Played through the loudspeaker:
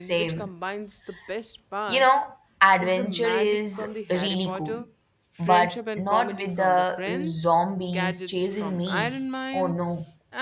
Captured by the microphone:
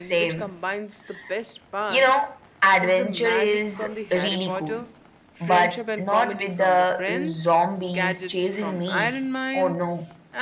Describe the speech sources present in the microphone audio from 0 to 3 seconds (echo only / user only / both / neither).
echo only